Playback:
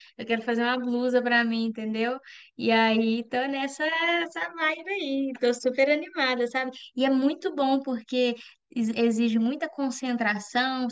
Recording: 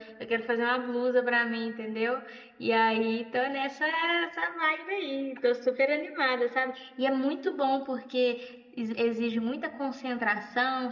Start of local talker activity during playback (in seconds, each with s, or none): none